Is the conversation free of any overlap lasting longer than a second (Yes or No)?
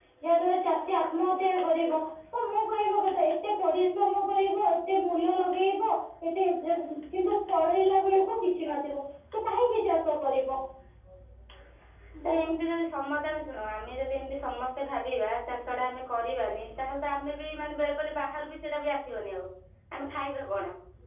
Yes